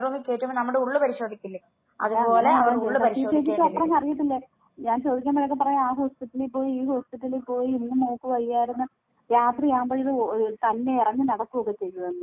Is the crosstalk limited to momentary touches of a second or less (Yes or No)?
No